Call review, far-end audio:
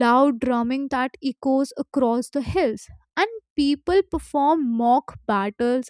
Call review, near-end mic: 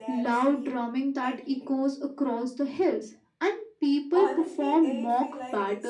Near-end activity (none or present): present